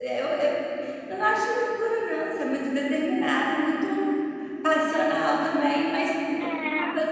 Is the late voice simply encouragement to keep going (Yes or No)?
No